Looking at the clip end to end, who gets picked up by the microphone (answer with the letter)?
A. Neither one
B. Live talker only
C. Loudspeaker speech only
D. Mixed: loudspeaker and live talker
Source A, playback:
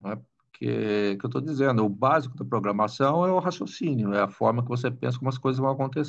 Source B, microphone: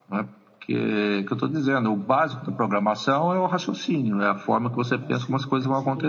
D